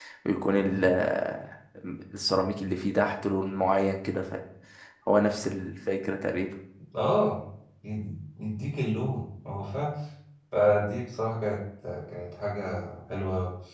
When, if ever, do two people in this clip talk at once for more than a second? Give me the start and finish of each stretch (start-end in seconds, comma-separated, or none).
none